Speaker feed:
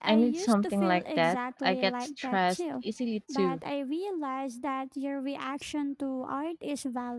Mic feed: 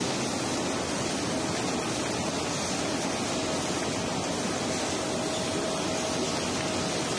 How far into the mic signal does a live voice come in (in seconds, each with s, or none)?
none